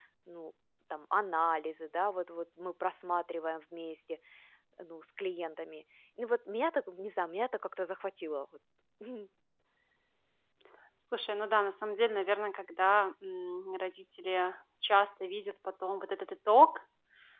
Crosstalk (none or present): none